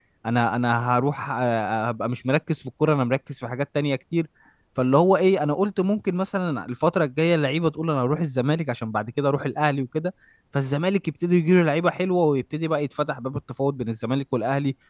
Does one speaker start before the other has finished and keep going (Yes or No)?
No